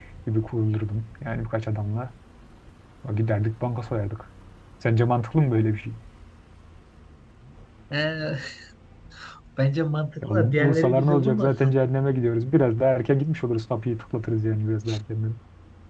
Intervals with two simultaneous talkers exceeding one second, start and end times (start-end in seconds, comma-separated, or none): 10.3-11.7